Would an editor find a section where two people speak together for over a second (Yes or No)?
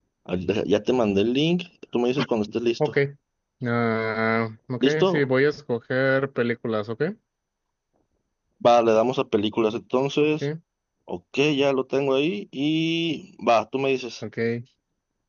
No